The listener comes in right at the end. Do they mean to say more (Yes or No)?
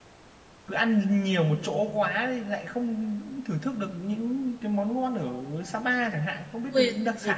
Yes